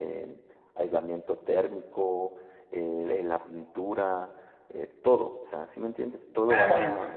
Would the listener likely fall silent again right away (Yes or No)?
No